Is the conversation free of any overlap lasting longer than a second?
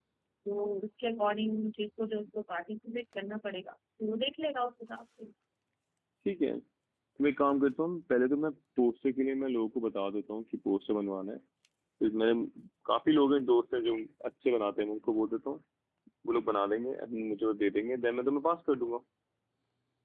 Yes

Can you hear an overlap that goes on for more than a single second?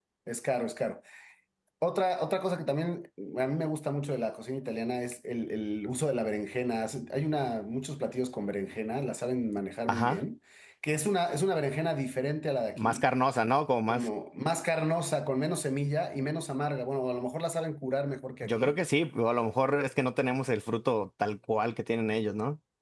No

